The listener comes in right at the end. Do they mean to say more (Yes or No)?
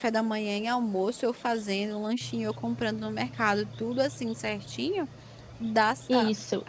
Yes